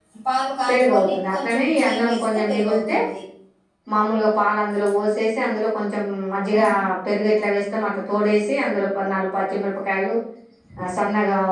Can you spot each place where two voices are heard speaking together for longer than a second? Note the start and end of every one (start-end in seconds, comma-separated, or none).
0.7-3.0